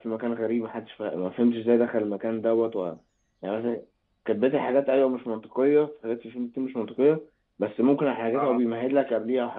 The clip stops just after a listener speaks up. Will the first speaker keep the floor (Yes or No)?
Yes